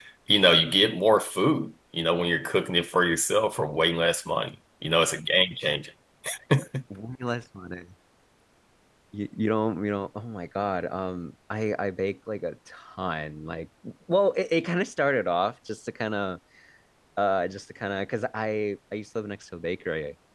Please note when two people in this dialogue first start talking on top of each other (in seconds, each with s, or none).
none